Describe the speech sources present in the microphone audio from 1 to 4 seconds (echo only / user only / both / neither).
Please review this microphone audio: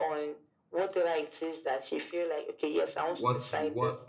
both